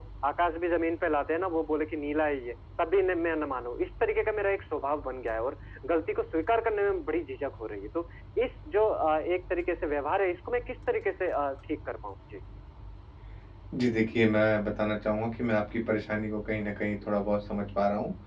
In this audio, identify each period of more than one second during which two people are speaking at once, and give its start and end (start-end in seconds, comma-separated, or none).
none